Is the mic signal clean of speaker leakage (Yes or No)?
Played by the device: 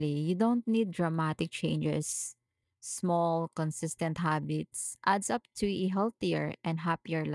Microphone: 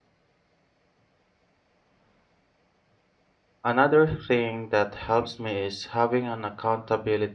Yes